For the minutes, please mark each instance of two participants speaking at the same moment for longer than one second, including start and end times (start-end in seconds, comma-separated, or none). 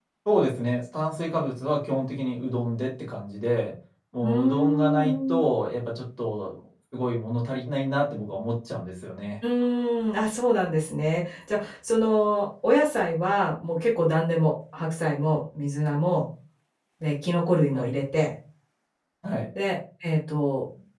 4.2-5.4